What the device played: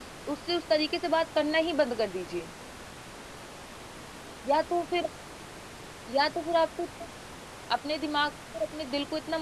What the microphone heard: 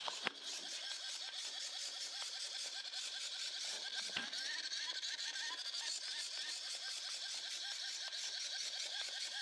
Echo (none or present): none